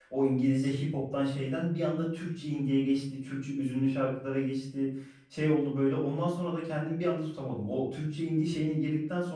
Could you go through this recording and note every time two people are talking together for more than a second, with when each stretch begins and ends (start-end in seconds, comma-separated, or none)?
none